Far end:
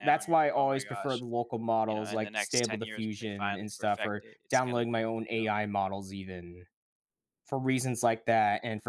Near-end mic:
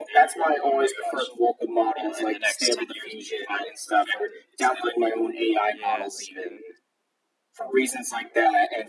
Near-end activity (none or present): present